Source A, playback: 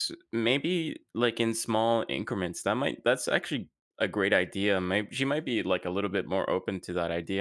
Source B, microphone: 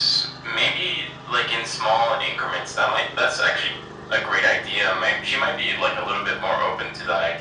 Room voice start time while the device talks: none

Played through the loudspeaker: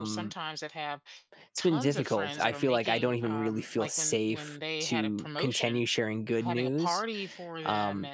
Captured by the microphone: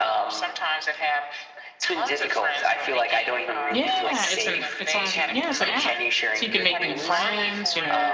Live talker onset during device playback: 3.7 s

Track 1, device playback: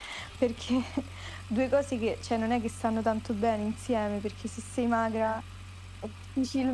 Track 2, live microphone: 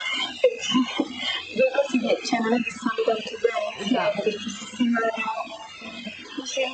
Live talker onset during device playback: 3.7 s

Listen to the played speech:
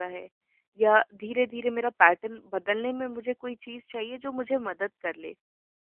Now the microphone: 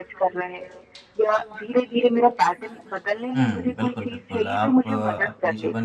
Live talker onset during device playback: 3.4 s

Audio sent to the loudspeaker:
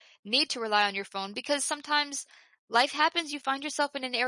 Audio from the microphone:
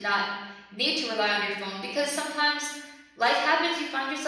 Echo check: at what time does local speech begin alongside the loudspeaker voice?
none

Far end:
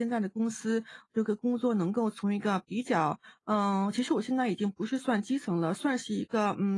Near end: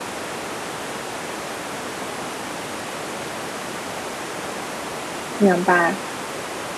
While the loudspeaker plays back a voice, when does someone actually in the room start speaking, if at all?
5.4 s

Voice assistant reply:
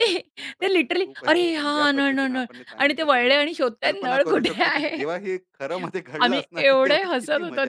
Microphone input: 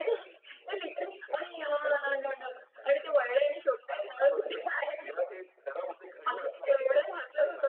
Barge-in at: none

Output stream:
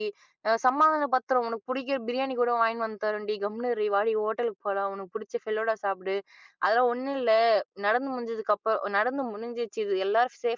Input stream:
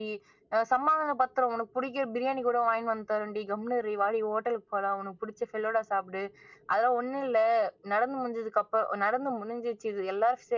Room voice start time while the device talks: none

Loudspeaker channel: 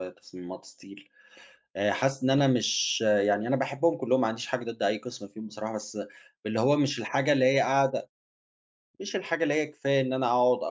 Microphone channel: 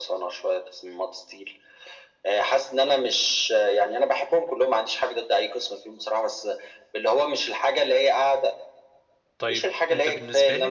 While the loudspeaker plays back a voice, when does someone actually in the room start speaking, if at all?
9.4 s

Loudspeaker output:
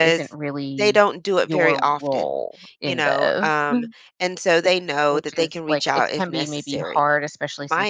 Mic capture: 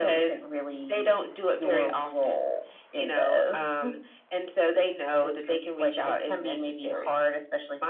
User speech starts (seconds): none

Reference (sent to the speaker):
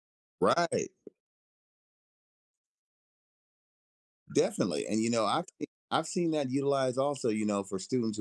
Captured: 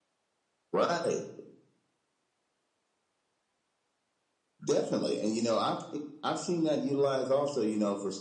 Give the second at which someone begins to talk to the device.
none

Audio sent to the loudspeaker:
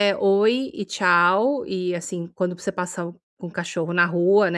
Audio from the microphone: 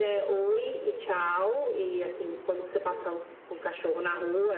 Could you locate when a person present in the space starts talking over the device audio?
none

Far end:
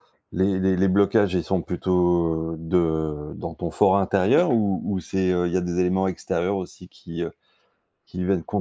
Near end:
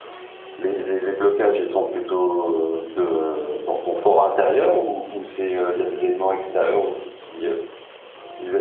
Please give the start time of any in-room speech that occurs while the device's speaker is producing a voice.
none

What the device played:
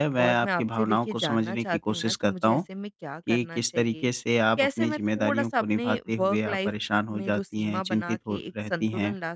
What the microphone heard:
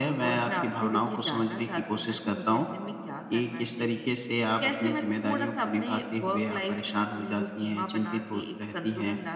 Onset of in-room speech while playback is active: none

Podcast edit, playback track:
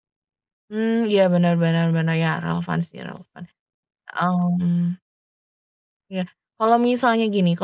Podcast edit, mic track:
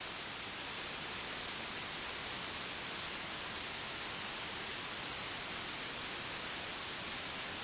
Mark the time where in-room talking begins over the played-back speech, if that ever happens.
none

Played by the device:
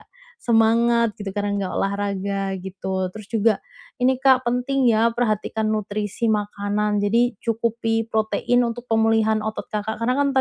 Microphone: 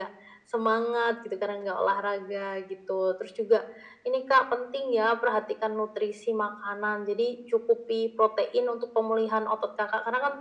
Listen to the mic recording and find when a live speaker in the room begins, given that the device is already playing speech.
none

